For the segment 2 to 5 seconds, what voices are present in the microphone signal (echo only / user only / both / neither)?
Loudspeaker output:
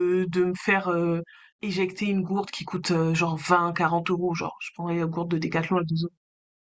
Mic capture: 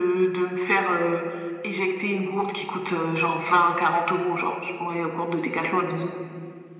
echo only